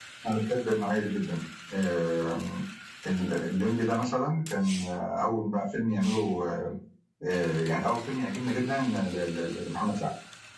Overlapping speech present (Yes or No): No